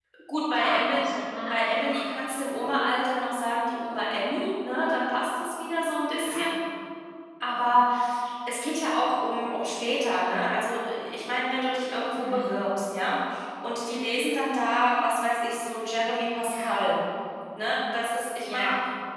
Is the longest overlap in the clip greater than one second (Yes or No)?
No